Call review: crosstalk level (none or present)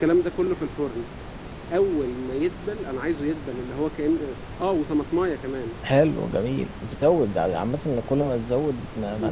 none